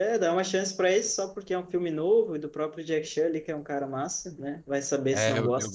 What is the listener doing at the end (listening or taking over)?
taking over